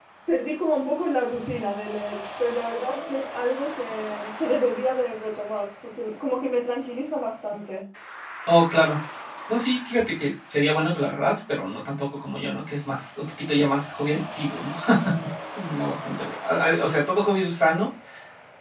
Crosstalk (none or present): none